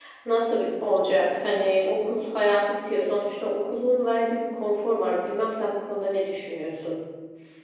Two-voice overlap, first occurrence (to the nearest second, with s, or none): none